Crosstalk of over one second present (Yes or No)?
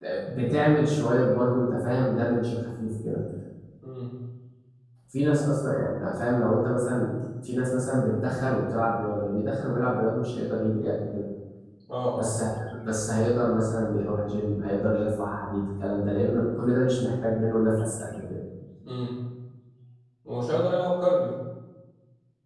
No